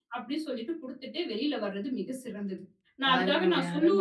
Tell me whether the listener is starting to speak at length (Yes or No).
No